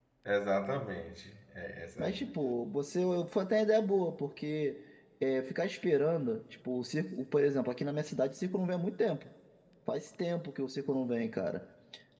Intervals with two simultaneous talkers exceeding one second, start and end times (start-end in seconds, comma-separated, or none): none